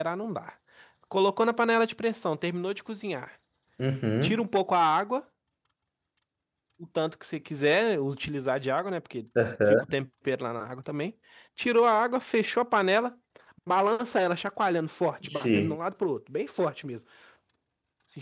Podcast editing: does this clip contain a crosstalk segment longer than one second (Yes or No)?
No